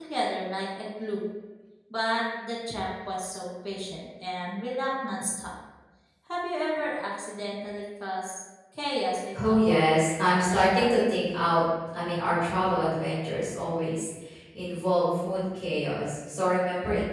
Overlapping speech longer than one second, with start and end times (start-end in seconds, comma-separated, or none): 9.4-10.9